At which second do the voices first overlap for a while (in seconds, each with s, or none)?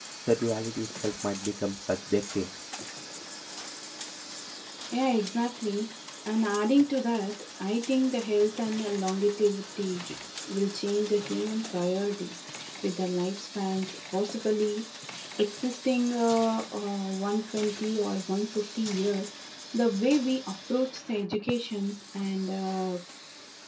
none